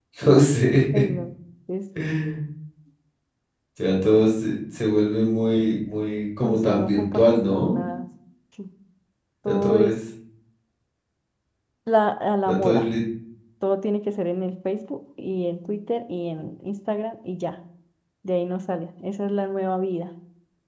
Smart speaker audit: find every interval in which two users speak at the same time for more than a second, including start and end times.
6.4-7.8

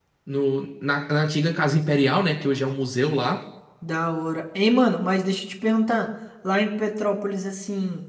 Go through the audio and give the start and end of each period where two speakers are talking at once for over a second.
none

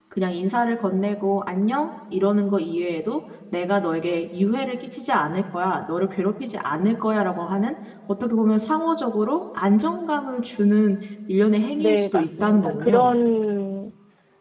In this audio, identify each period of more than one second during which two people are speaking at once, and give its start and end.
11.8-13.2

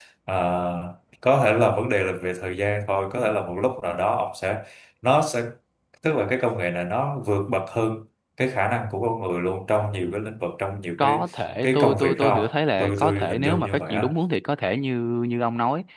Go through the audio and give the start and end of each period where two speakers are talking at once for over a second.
11.6-14.1

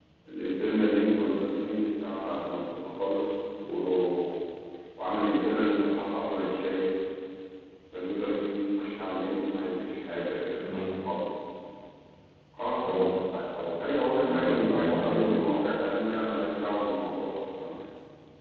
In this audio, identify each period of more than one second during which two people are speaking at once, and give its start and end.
14.2-15.5

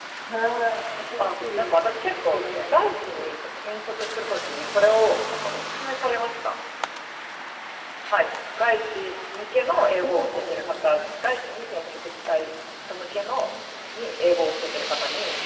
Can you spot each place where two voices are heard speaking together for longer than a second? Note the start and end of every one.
1.2-3.3, 9.7-11.1

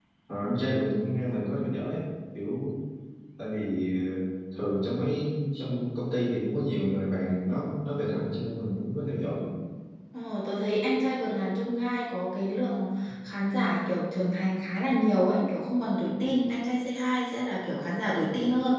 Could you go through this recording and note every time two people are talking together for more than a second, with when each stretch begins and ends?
none

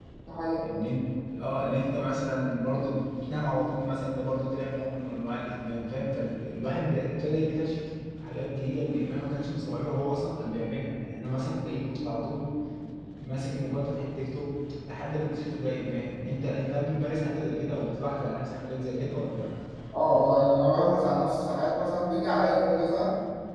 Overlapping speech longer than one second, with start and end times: none

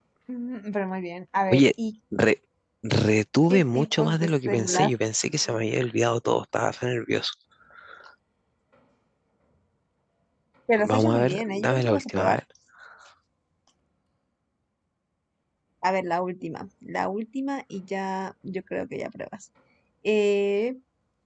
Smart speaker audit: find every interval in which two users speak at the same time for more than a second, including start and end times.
3.5-4.9, 10.9-12.4

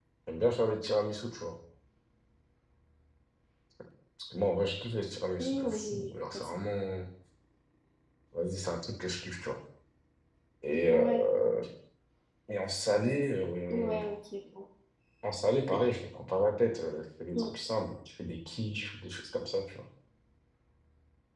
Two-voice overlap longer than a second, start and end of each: 5.4-6.8

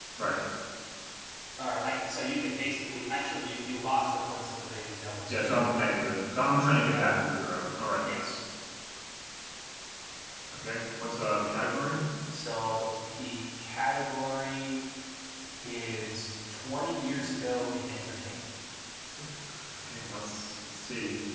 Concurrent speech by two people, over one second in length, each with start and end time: none

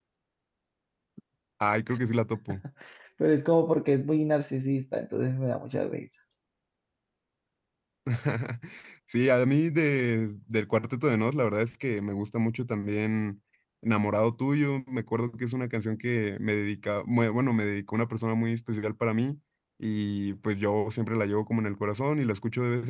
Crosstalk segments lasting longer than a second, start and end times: none

